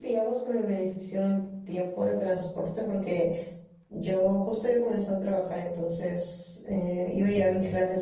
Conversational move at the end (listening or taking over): listening